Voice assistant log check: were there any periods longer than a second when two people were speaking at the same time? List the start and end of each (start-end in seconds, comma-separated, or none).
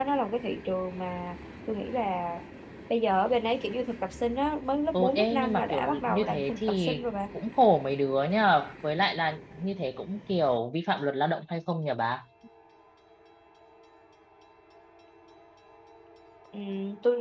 4.9-6.9